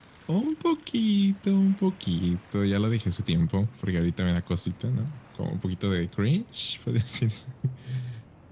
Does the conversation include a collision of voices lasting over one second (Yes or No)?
No